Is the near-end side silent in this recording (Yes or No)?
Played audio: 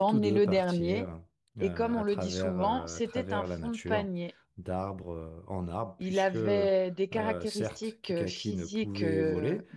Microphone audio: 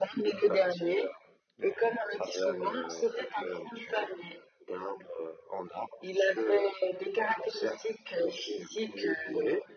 Yes